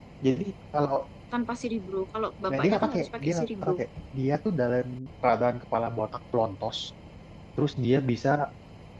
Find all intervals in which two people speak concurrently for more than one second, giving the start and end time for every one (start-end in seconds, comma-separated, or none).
2.5-3.8